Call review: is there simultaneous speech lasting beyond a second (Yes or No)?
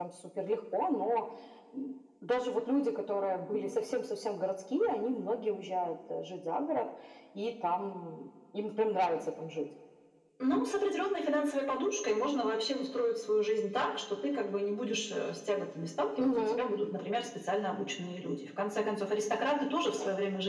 No